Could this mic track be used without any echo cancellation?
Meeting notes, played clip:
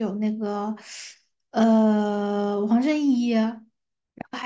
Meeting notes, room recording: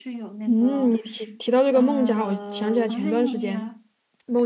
No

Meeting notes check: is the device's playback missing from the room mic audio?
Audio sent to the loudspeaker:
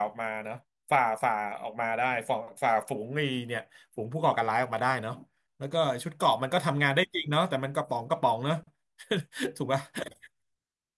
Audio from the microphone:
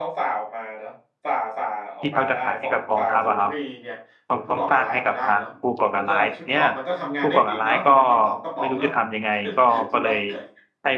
No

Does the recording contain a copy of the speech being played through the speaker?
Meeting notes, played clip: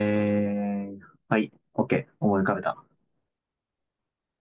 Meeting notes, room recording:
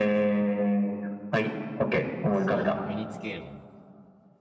Yes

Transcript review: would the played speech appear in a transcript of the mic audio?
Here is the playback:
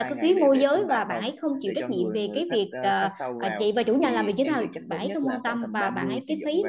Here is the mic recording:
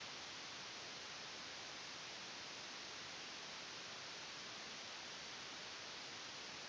No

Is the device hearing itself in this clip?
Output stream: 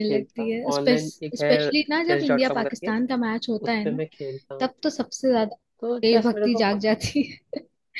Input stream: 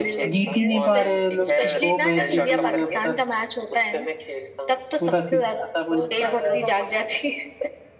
Yes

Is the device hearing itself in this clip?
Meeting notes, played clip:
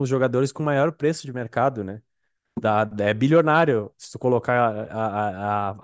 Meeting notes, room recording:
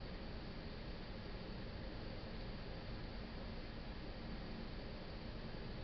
No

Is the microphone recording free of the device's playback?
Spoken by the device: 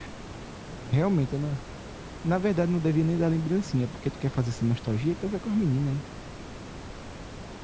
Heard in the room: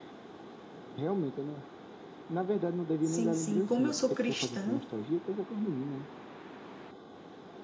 No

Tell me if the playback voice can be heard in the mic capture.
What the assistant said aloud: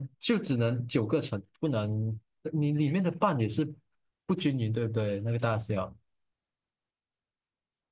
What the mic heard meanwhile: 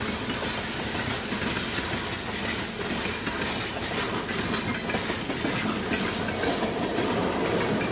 No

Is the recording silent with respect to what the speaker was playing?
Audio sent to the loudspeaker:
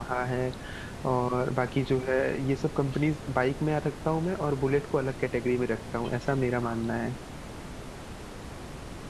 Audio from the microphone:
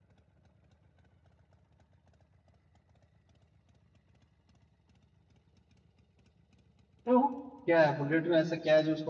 Yes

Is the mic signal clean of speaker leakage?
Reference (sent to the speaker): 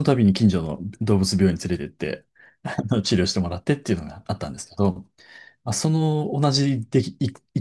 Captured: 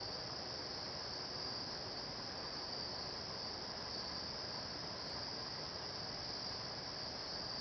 Yes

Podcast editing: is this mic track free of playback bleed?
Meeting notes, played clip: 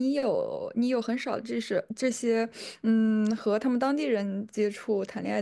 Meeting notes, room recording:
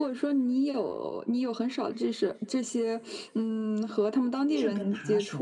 No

